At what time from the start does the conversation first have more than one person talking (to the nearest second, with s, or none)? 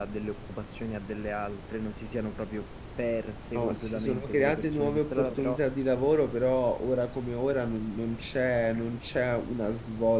4 s